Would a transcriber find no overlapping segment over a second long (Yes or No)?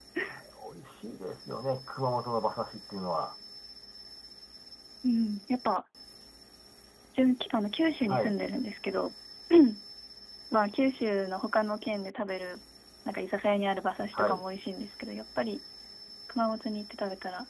Yes